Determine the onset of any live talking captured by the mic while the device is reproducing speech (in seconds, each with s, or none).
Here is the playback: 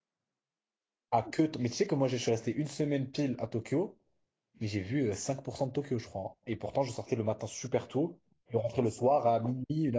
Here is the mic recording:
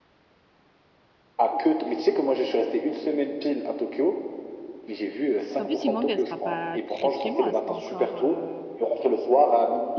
5.6 s